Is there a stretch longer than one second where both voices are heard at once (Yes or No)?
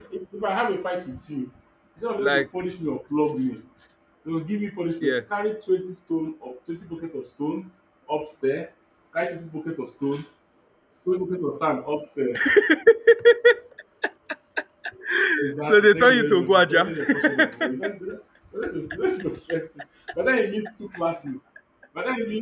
Yes